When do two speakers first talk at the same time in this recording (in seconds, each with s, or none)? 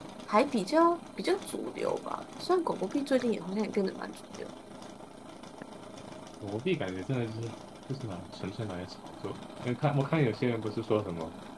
none